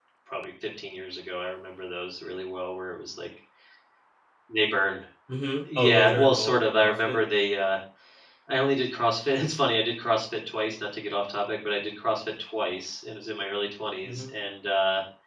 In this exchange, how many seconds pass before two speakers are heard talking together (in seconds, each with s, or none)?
5.8 s